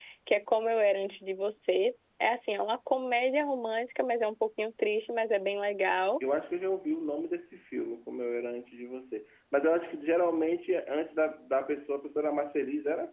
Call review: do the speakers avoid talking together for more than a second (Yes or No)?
Yes